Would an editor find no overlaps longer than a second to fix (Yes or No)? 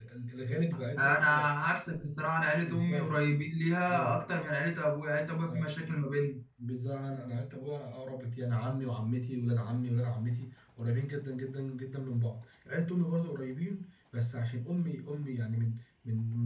Yes